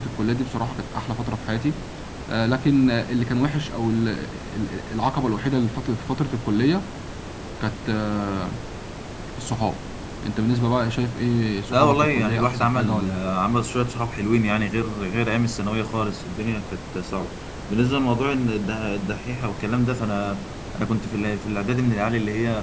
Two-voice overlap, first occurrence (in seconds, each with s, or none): 11.7 s